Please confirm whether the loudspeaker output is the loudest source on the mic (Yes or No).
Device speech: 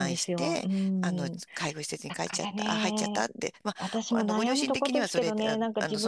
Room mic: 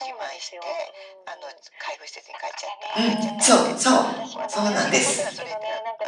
No